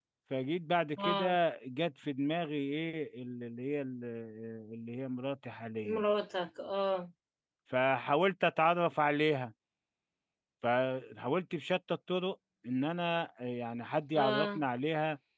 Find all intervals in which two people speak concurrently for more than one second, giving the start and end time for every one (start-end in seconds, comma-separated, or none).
none